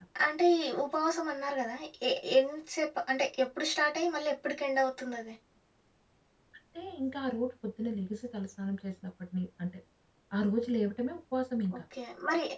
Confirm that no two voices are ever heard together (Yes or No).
Yes